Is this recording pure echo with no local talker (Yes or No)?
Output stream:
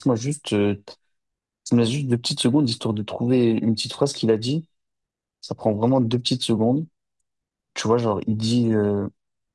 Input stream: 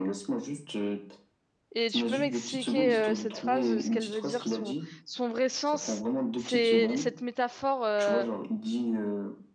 No